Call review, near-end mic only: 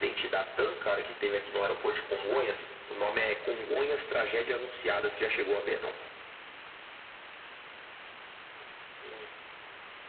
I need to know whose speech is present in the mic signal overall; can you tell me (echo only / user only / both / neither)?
echo only